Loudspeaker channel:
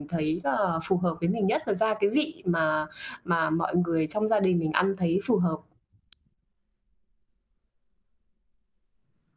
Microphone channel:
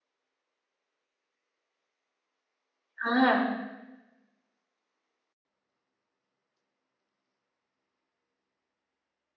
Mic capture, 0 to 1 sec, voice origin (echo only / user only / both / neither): neither